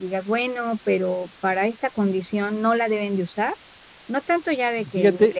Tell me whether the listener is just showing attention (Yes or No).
Yes